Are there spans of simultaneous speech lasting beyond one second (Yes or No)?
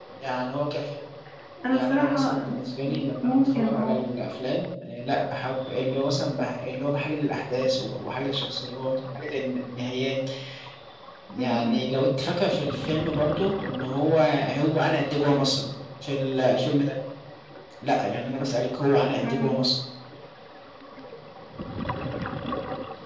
Yes